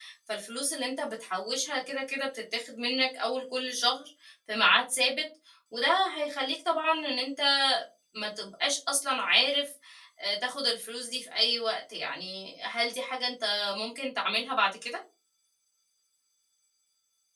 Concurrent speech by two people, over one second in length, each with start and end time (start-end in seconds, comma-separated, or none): none